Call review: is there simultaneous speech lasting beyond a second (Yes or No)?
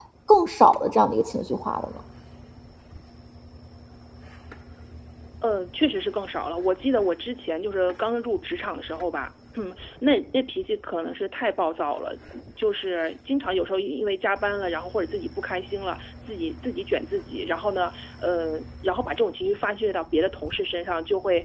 No